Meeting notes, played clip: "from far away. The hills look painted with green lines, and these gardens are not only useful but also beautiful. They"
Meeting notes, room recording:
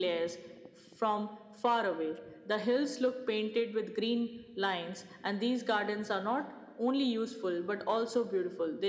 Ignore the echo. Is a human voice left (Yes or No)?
No